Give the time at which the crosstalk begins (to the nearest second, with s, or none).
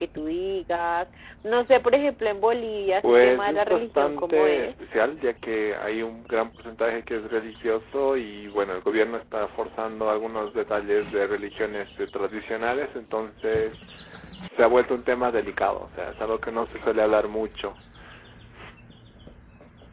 3 s